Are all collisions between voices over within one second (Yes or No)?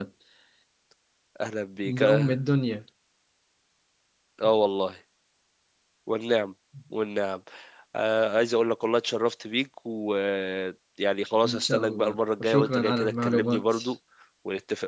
No